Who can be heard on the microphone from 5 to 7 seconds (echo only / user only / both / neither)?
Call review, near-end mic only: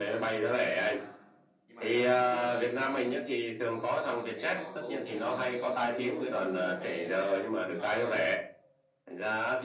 both